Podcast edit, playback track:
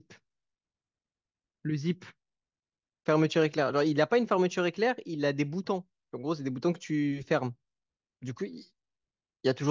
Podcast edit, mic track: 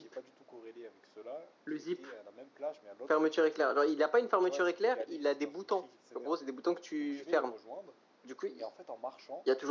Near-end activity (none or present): present